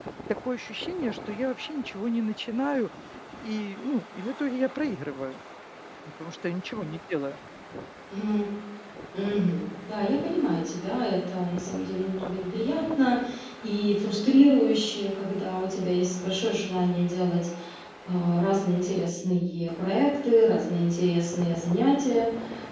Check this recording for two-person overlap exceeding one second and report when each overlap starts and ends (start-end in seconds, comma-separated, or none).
none